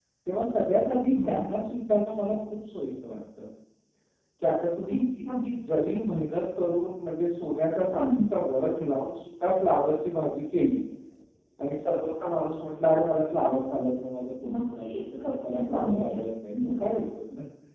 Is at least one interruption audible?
Yes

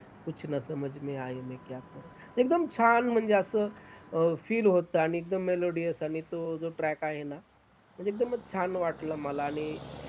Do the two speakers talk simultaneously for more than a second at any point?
No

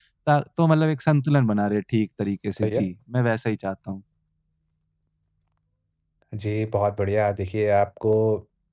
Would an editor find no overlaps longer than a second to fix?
Yes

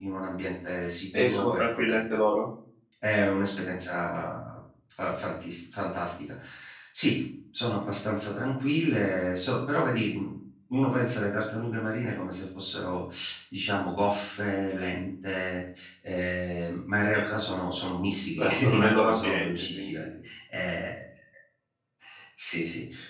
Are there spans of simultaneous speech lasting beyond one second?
Yes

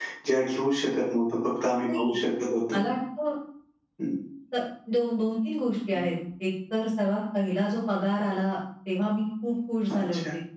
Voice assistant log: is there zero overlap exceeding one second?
Yes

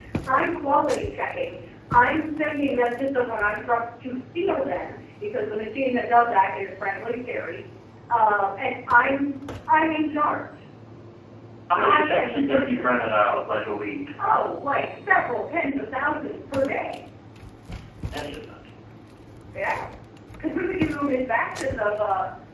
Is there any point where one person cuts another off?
Yes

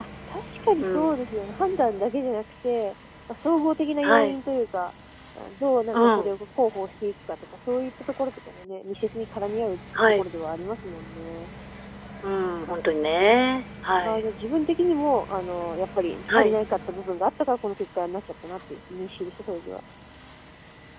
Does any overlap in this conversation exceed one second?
No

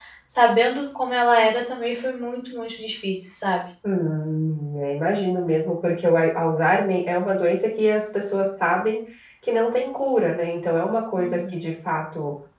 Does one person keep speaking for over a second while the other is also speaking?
No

